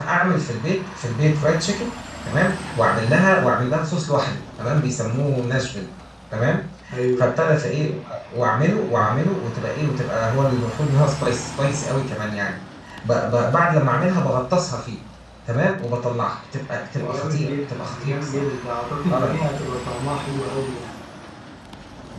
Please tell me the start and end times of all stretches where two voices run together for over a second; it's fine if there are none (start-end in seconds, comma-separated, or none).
17.0-18.5